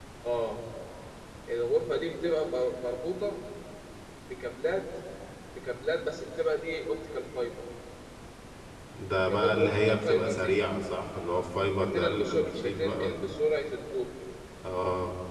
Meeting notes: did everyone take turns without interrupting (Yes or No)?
No